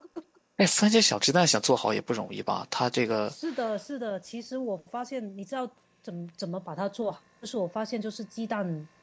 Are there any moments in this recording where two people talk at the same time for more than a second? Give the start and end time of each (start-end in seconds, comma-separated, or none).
none